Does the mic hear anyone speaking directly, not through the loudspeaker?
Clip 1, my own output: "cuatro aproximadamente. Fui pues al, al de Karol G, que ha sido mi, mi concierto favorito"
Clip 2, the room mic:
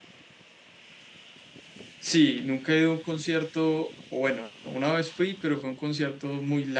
Yes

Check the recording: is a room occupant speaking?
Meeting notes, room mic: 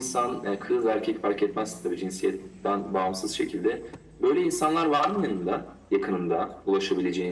No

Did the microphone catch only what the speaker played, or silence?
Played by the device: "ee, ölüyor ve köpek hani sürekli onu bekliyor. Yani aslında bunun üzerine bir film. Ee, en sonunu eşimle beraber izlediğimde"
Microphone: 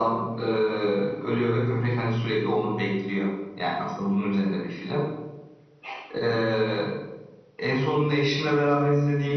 Yes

